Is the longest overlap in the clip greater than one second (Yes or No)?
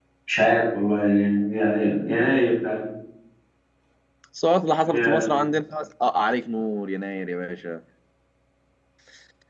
No